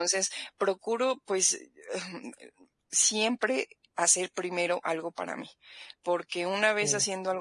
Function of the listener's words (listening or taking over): listening